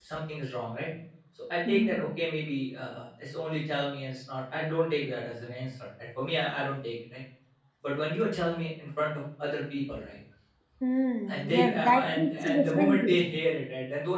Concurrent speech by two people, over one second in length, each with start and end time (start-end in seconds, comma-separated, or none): 11.3-13.2